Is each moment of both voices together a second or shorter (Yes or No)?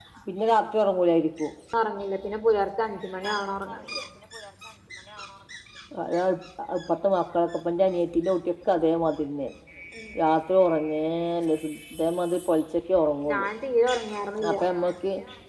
Yes